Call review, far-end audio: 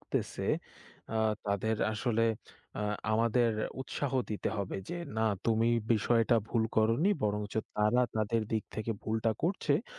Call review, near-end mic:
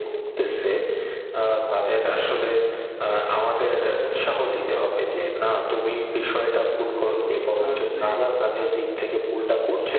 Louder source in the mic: echo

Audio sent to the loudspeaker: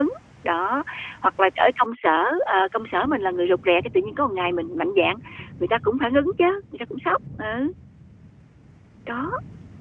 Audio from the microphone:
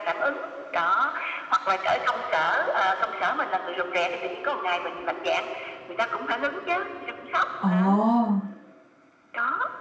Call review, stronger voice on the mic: user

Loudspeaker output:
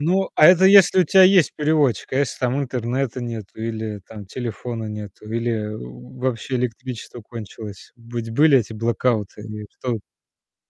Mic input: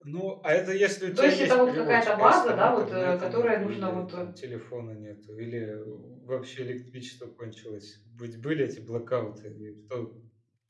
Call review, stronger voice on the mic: user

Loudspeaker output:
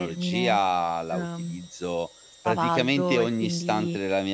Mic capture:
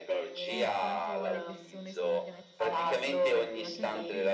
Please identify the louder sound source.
echo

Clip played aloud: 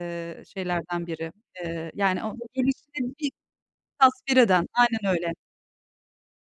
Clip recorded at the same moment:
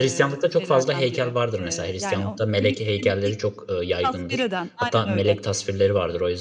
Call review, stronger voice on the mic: user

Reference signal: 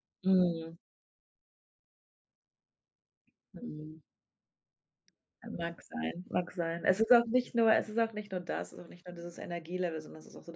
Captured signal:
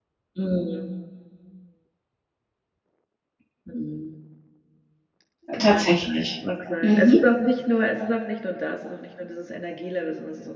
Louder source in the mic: user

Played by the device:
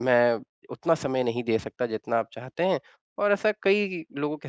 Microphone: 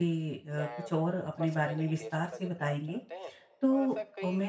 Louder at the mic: user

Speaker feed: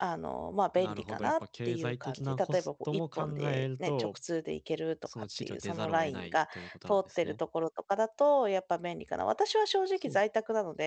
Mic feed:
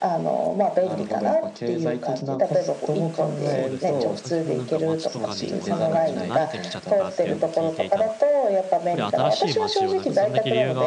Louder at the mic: echo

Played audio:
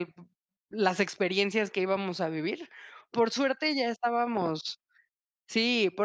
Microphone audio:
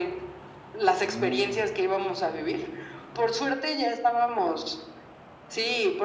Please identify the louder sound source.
echo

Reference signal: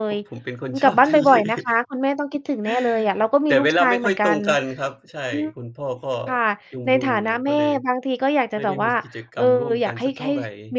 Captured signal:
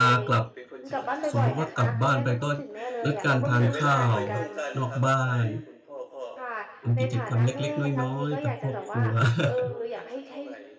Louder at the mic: user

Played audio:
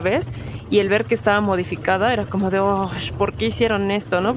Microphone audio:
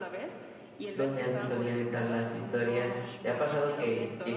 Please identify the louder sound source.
user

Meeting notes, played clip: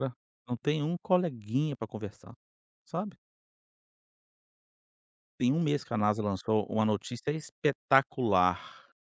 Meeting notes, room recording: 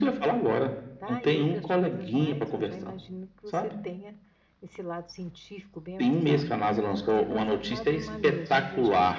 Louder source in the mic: echo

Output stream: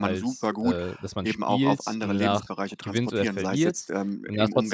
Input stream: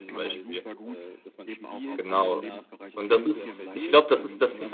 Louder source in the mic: user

